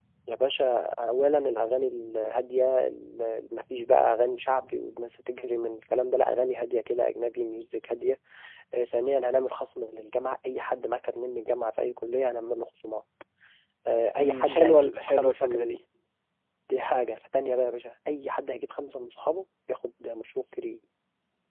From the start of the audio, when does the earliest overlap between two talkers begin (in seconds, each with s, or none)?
14.2 s